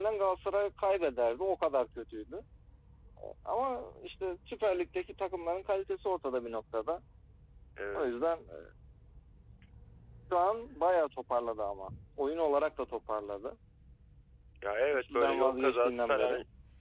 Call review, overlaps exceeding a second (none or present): present